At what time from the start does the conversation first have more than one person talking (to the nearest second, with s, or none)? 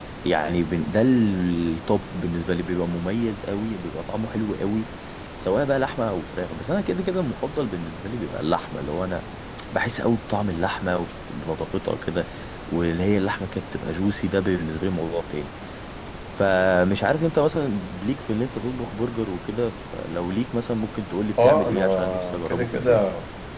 21 s